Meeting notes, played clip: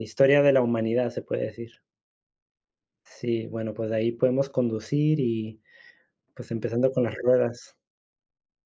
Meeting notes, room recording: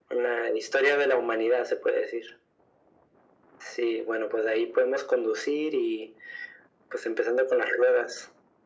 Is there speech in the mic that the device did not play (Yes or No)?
No